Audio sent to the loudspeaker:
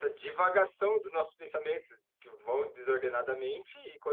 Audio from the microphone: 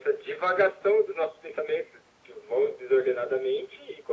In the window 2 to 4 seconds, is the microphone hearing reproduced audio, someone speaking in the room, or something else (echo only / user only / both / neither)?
echo only